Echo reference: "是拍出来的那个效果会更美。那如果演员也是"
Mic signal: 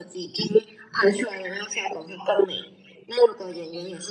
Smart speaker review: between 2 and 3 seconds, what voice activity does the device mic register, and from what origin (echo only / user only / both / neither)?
echo only